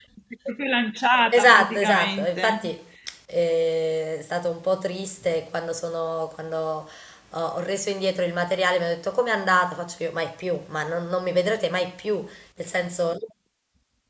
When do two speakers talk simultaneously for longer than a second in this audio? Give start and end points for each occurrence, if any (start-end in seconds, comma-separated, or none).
1.3-2.7